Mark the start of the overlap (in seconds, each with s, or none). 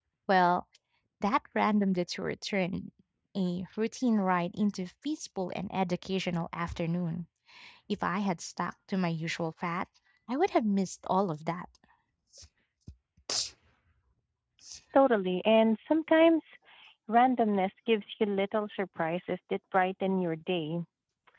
none